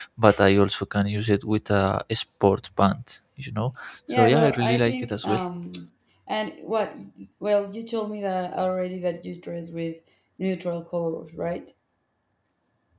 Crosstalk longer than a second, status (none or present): present